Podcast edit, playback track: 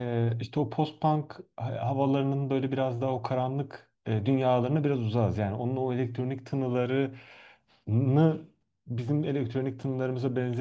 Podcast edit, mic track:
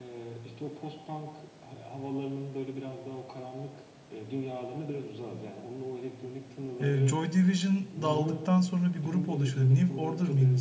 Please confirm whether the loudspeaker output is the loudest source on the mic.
No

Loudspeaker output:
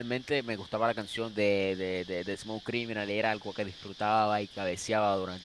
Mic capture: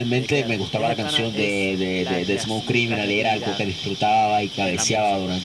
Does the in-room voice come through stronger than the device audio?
No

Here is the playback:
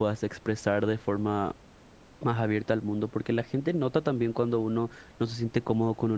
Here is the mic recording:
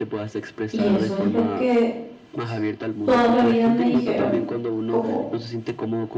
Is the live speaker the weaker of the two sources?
No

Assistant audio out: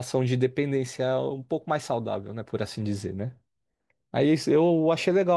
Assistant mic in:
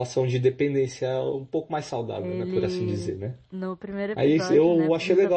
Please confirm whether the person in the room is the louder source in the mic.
No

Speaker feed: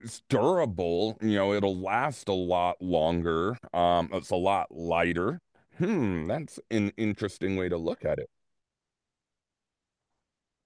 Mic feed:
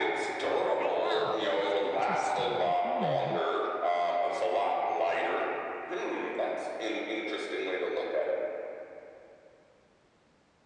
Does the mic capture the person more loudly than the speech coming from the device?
No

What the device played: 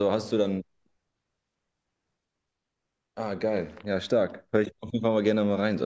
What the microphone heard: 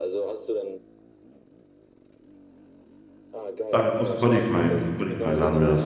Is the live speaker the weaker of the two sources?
No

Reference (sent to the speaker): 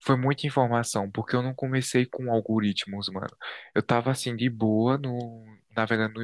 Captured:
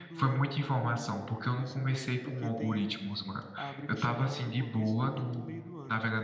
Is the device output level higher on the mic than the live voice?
Yes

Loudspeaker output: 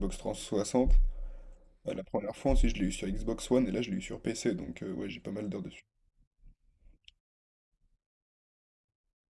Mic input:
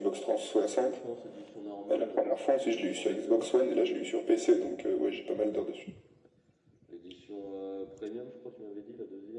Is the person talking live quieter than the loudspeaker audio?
Yes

